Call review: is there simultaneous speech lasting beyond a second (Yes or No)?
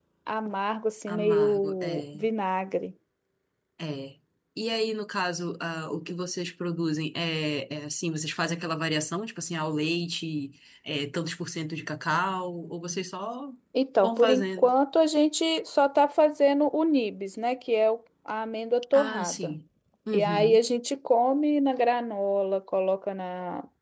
Yes